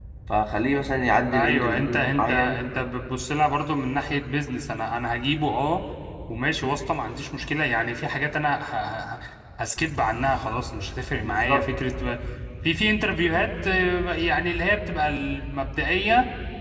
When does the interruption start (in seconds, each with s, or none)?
1.3 s